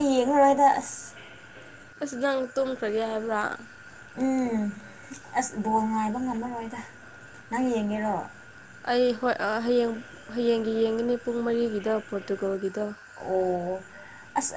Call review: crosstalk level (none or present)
none